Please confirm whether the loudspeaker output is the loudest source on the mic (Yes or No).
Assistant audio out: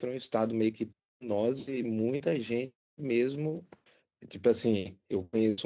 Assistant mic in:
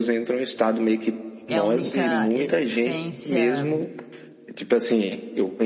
Yes